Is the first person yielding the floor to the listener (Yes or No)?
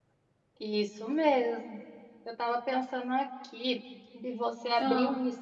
No